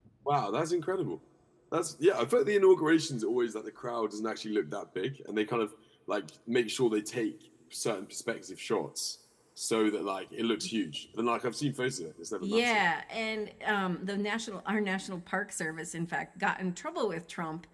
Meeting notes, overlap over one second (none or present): none